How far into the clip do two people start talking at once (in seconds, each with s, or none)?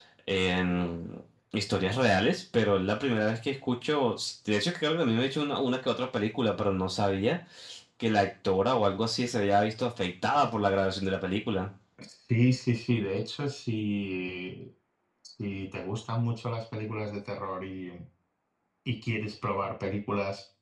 none